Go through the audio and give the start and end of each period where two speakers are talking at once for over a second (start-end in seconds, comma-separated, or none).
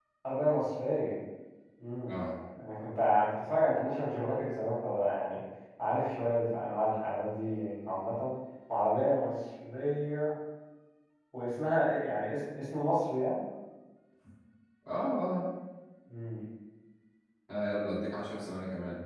none